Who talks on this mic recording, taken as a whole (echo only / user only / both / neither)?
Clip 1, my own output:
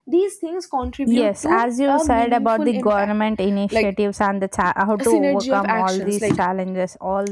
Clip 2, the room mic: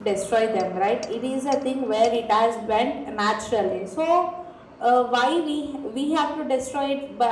user only